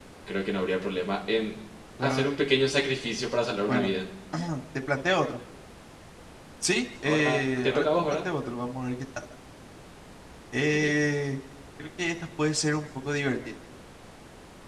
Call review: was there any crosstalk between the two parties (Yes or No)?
Yes